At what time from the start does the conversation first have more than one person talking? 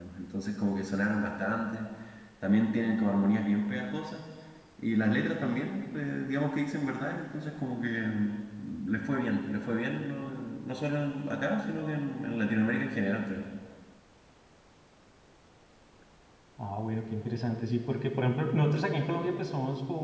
none

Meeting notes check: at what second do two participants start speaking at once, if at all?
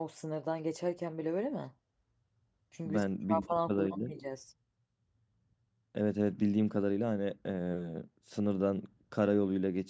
2.9 s

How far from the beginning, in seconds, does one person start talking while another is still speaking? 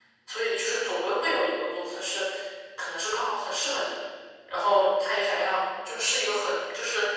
none

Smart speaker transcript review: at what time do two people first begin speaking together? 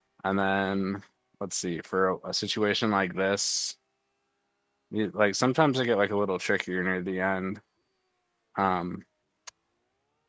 none

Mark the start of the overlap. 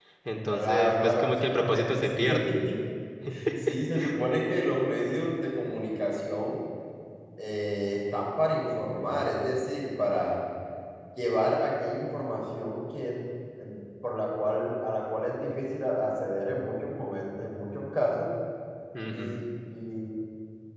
0.5 s

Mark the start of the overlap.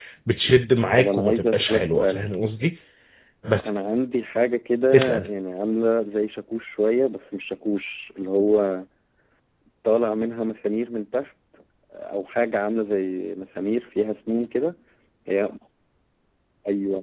1.0 s

